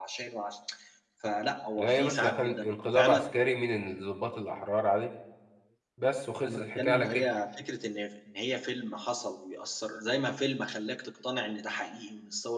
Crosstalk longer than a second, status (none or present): present